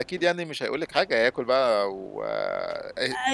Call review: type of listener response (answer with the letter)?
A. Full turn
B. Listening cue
A